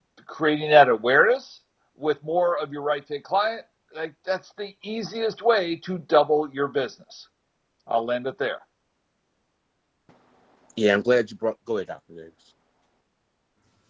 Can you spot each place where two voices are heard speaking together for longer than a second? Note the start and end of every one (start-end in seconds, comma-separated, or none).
none